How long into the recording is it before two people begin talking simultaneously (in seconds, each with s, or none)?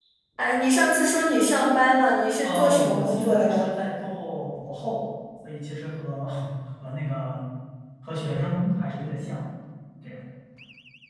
2.4 s